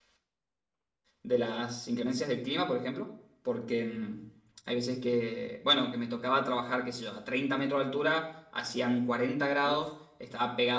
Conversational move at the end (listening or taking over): listening